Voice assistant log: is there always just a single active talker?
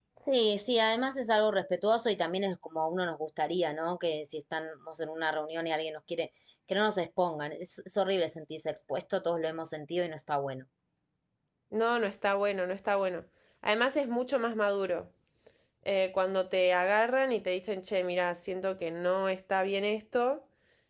Yes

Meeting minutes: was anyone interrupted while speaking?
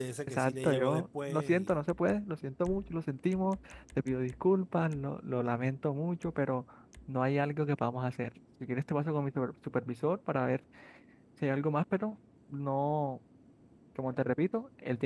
Yes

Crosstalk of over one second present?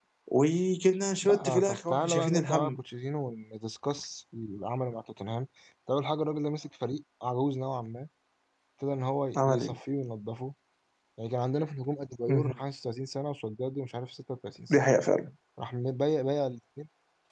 Yes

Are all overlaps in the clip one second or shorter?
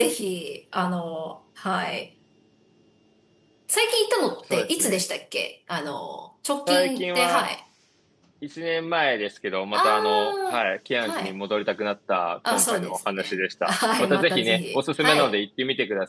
No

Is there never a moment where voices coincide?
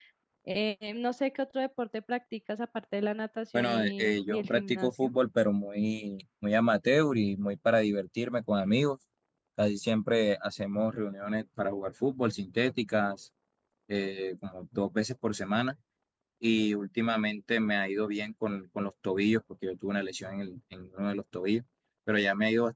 No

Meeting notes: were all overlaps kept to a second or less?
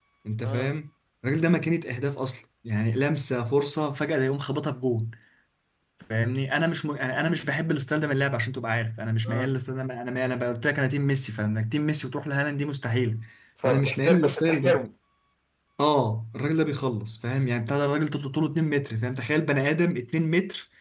No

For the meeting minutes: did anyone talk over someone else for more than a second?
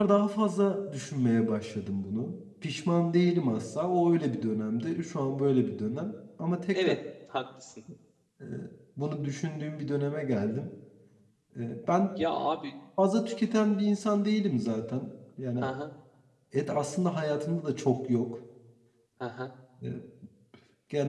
No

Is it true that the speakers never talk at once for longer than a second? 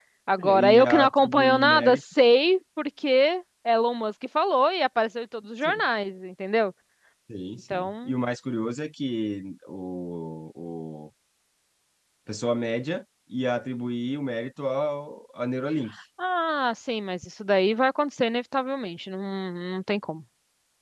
No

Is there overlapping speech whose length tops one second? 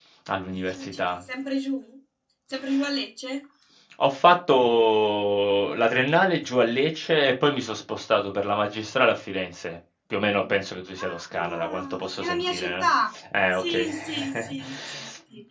Yes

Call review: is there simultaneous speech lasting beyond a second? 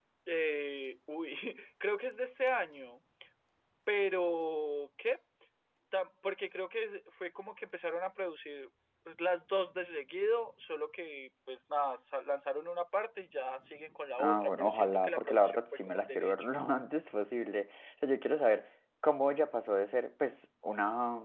Yes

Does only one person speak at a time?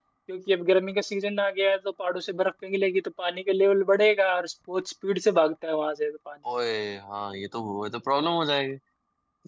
Yes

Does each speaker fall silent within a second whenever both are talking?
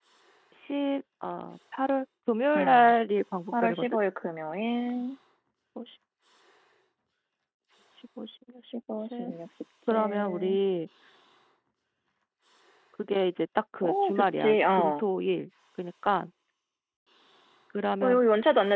No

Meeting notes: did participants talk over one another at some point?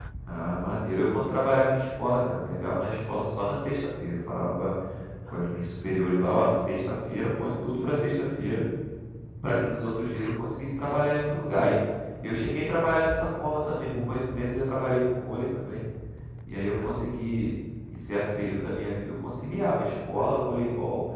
No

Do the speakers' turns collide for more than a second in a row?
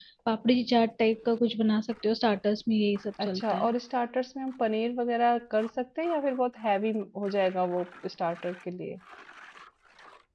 No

